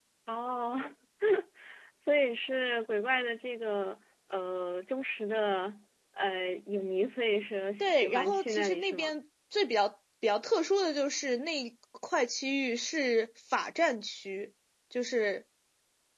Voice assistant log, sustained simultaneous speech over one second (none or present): present